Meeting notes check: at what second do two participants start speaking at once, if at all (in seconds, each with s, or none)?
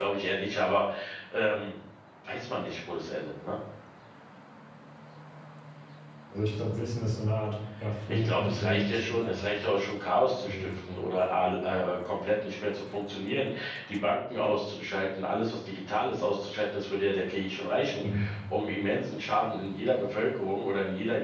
8.1 s